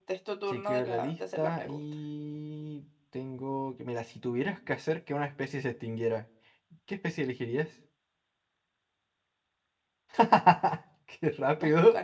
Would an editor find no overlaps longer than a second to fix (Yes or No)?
No